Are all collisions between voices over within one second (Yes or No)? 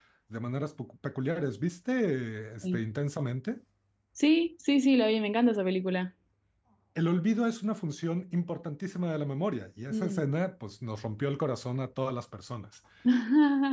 Yes